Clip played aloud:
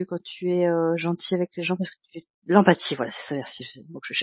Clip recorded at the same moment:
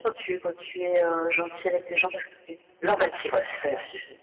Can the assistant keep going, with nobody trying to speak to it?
Yes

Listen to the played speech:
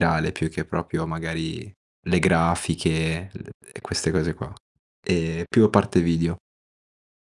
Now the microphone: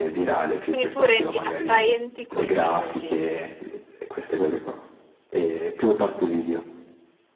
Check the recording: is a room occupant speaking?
Yes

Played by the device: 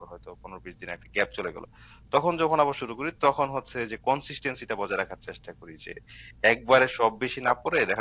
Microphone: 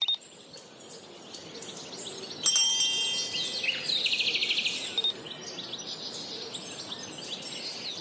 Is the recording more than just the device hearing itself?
No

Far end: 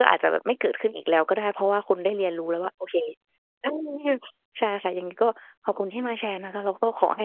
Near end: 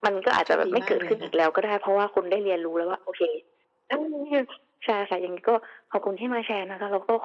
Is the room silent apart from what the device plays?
No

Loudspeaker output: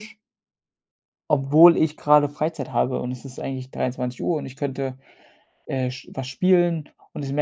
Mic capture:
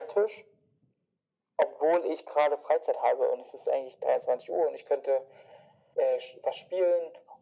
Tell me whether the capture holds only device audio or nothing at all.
Yes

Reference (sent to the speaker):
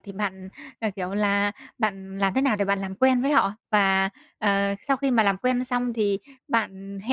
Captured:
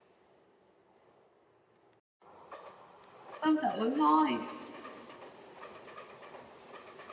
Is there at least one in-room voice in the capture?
Yes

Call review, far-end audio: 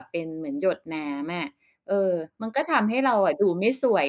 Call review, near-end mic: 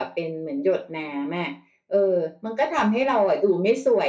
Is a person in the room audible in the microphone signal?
No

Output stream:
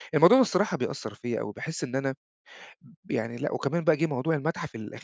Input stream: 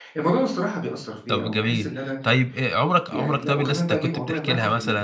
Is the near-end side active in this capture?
Yes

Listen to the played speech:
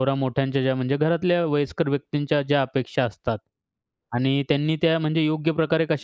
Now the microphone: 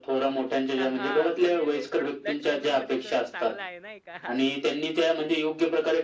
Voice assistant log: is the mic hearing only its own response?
No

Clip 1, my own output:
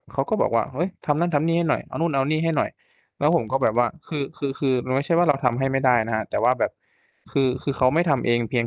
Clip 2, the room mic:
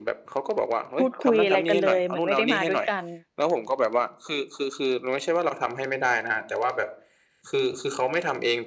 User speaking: Yes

